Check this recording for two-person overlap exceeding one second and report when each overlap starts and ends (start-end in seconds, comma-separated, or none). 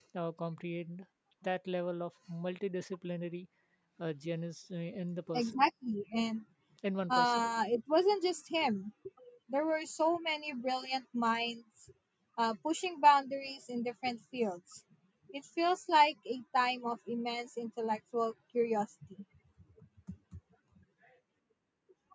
none